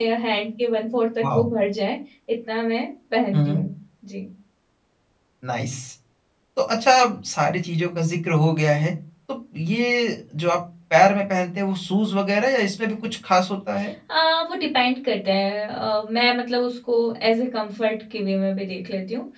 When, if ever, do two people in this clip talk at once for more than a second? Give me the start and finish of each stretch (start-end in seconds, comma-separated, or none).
none